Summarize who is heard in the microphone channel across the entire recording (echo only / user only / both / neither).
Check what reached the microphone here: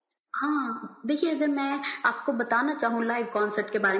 echo only